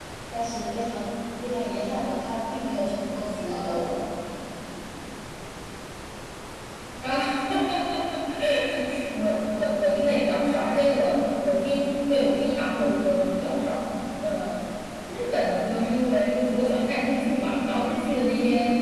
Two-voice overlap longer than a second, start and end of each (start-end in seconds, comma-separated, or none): none